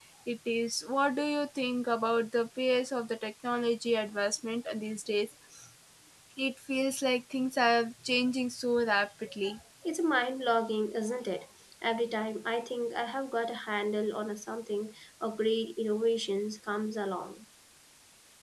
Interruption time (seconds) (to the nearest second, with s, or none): none